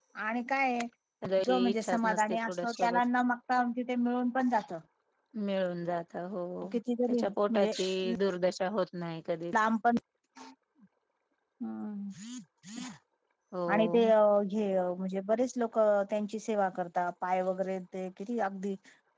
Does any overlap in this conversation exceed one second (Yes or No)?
Yes